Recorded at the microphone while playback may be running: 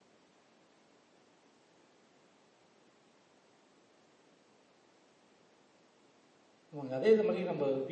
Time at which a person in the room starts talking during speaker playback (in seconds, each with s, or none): 6.7 s